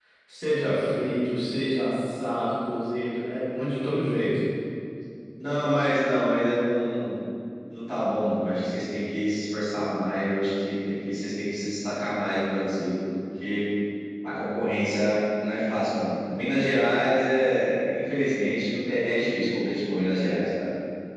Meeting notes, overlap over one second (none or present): none